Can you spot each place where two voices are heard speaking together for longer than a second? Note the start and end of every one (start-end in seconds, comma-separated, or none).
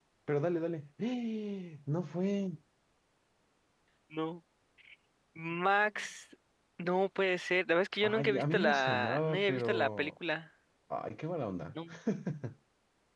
8.0-10.1